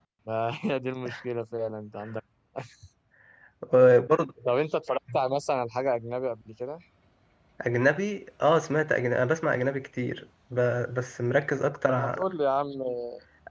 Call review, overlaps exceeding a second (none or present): none